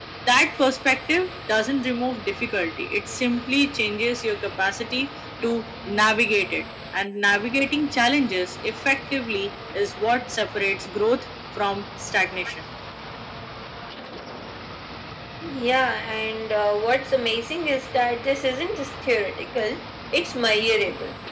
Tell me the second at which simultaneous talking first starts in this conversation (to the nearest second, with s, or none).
none